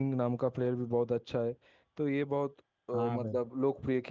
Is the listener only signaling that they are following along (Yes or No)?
Yes